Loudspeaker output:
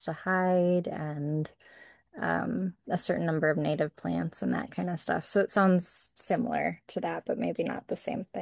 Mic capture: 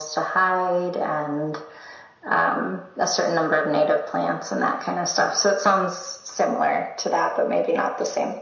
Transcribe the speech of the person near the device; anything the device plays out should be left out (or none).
none